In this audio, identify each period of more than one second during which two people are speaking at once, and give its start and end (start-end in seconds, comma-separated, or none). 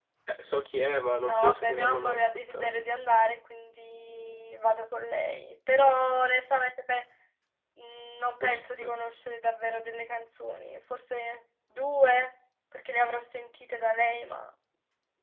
1.2-2.8